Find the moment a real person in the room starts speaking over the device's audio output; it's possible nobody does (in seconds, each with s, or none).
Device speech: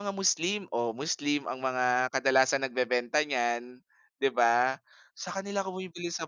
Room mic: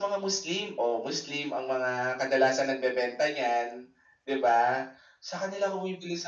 none